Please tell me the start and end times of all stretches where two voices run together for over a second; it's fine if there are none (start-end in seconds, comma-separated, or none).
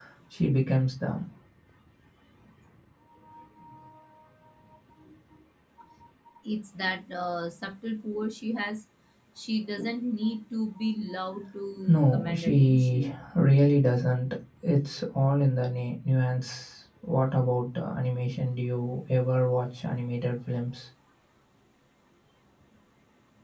11.9-13.2